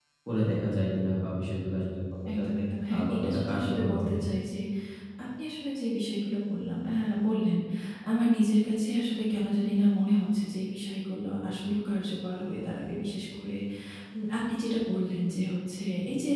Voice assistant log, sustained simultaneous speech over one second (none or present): present